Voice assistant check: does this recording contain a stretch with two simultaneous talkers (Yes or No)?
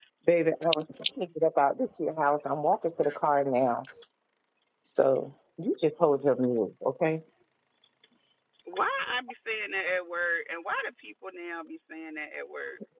No